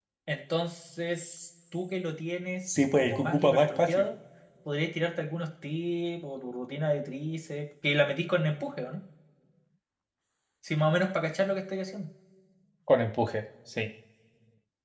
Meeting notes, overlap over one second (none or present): present